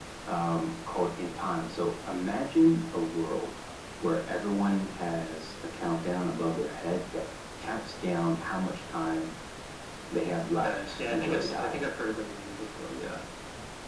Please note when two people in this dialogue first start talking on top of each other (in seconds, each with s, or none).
10.5 s